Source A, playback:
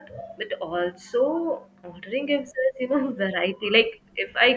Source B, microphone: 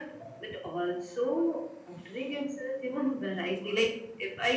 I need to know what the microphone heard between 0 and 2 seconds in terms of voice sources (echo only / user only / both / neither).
echo only